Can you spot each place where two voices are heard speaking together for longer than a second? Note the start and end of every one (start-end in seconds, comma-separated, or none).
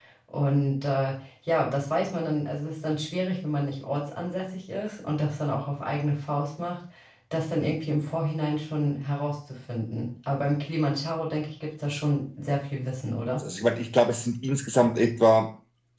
none